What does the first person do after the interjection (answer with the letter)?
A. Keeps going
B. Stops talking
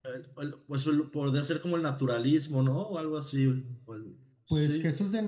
B